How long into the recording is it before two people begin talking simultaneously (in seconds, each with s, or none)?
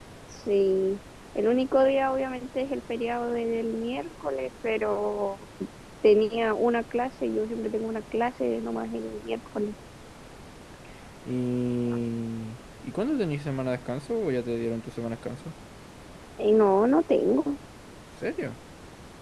none